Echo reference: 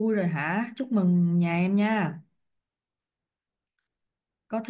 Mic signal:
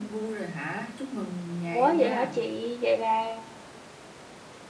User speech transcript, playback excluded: Ủa vậy hả chị? Vậy là

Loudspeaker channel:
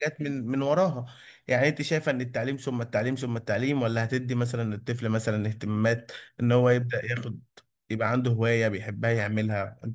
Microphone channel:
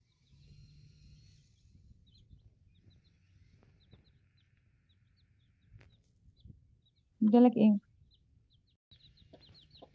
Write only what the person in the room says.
لك ايه

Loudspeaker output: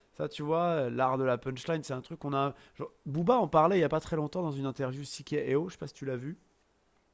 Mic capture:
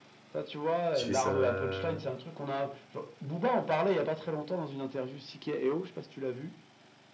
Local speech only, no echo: qui fait sa,

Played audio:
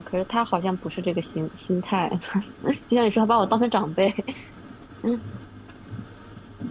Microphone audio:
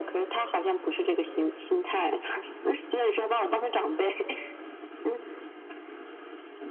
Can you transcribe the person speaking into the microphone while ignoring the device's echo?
none

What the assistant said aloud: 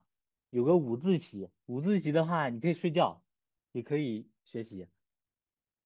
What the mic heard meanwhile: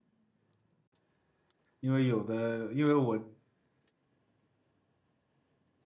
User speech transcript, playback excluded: 因为有的，因为我

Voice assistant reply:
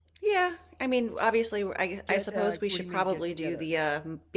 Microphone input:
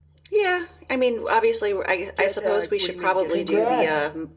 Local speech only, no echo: Congrats.

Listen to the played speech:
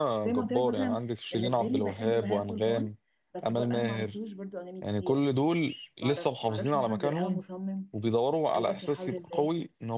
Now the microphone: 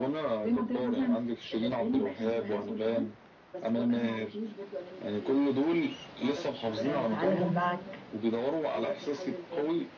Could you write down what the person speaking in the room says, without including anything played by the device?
آه تعالى دلعك

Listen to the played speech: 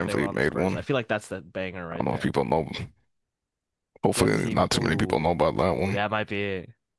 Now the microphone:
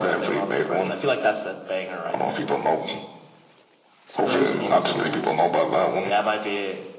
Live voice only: Spurs All-Star.

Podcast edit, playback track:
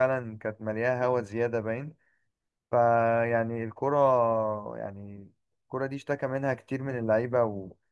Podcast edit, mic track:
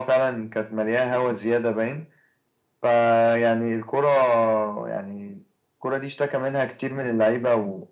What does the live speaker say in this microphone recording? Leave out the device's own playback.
none

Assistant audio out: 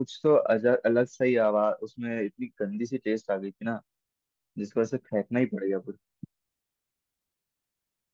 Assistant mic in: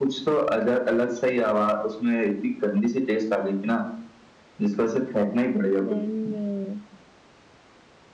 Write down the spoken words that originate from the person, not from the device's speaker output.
देन

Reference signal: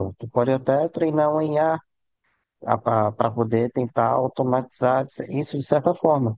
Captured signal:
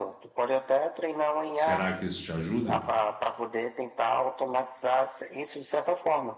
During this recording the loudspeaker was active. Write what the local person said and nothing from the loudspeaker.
Será que isso te ajuda?

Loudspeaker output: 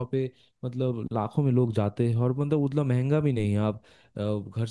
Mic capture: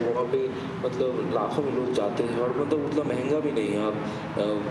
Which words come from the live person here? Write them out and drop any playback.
none

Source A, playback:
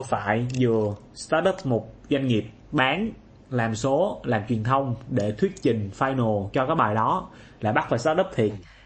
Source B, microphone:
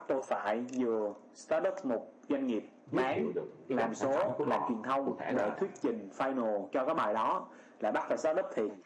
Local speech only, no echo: giới thiệu được cái dòng sản phẩm của họ cụ thể là

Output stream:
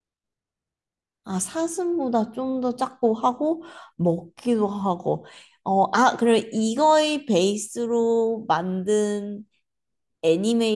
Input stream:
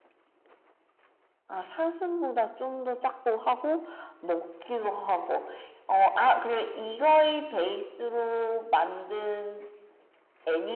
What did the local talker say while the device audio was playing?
none

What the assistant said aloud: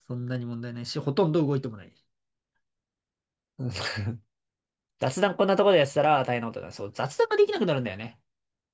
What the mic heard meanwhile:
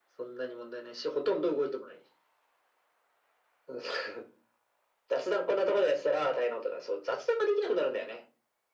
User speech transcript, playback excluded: none

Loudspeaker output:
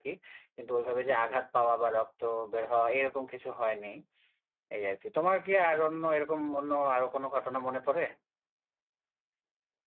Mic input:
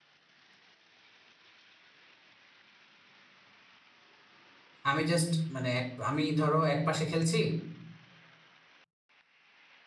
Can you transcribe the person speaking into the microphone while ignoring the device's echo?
আমি জাস্ট মানে এক আমি ধরো এক পাশে খেলছি

